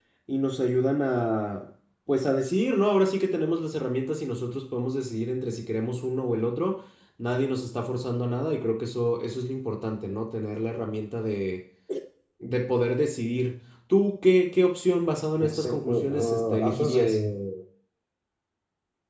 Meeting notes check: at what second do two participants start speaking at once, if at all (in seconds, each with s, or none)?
15.4 s